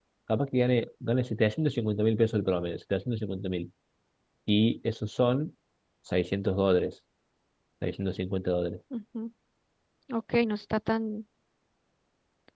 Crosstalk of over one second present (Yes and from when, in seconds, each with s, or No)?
No